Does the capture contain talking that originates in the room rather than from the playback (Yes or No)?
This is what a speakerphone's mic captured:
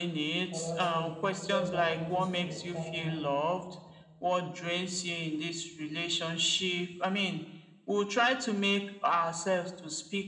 Yes